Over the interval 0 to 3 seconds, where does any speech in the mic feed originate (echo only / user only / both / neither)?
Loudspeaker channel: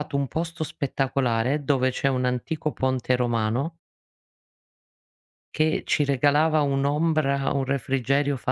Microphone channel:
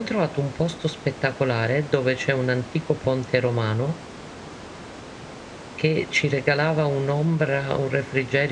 echo only